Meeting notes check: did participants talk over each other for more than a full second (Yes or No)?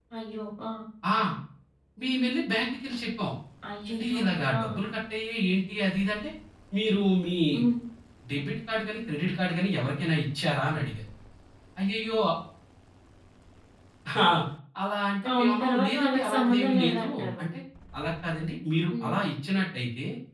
Yes